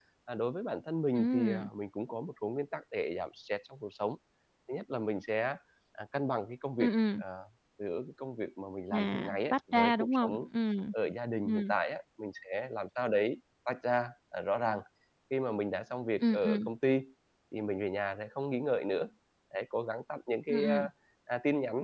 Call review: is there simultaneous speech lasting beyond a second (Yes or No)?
Yes